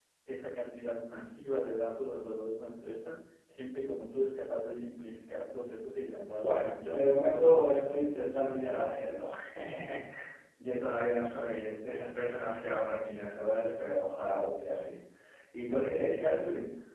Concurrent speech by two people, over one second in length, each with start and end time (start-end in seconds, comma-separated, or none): 6.4-8.4